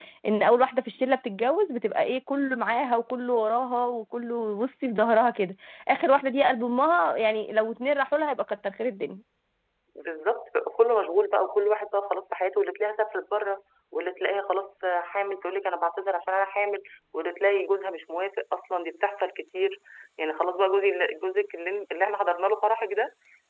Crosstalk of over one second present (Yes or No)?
No